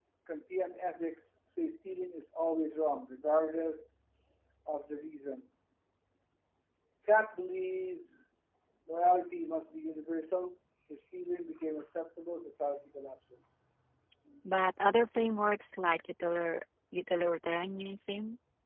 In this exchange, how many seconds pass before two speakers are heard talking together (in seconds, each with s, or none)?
none